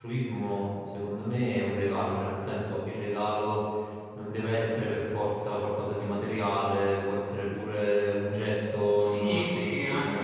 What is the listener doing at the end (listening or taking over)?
taking over